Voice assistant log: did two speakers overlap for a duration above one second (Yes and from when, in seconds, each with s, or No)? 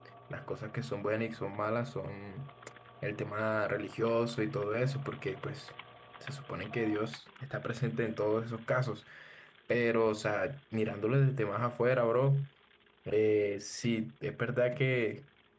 No